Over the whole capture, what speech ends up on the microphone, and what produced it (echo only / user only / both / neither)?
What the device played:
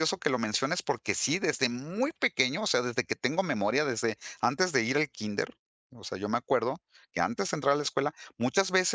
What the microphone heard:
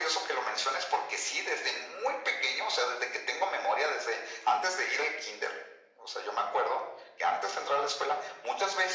echo only